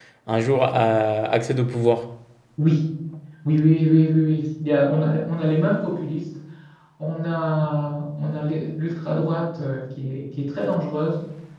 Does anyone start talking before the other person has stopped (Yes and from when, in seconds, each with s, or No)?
No